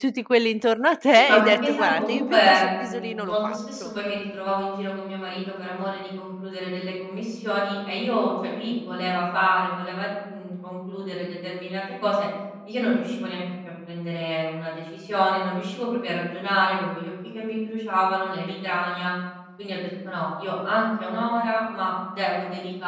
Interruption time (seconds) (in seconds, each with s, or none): 1.1 s